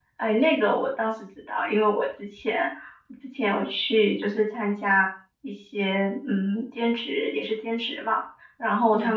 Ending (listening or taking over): listening